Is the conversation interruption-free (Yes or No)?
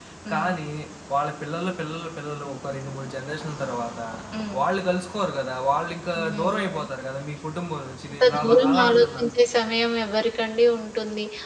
No